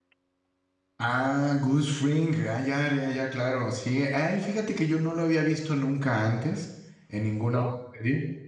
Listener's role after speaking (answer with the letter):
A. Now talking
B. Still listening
B